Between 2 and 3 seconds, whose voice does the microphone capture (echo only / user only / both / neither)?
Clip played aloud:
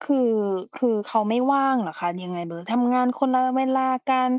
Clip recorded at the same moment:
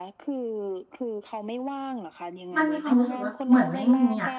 both